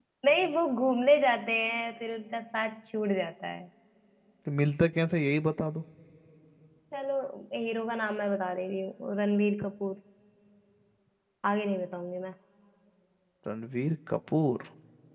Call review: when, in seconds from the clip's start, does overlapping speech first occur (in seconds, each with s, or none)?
none